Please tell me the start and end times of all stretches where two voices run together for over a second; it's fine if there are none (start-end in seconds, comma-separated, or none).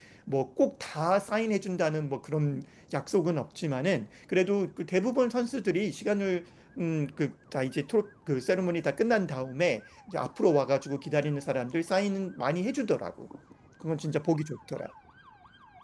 none